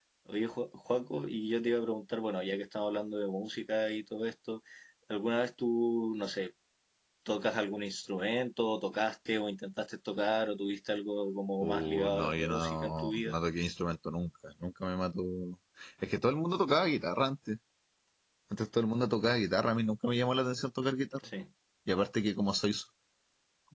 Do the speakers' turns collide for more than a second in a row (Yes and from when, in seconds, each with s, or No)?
Yes, from 11.6 s